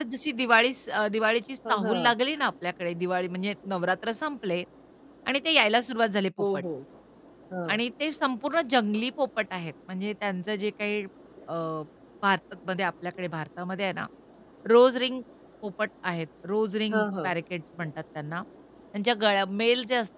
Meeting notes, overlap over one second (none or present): none